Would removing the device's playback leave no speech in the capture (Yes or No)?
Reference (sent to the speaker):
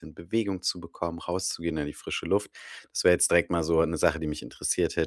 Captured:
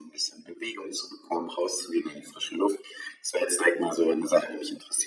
Yes